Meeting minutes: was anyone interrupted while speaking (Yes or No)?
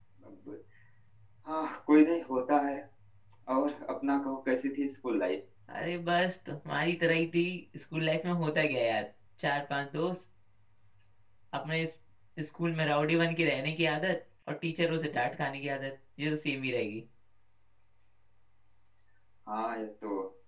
No